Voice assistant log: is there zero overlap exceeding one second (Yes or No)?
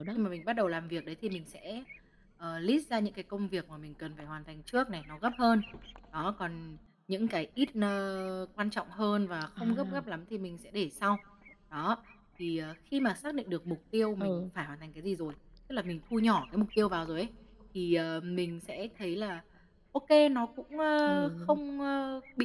Yes